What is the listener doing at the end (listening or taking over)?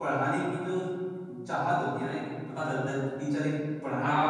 taking over